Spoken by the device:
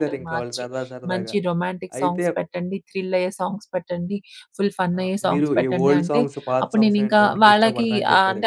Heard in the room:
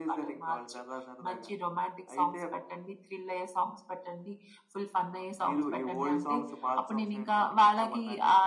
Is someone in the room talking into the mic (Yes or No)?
No